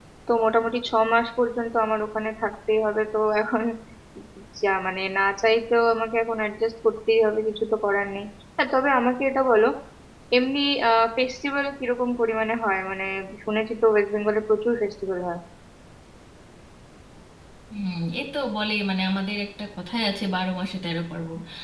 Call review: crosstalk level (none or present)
none